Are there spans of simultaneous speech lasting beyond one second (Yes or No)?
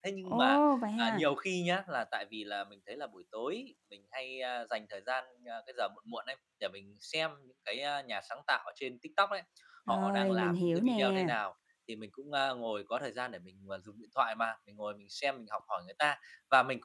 Yes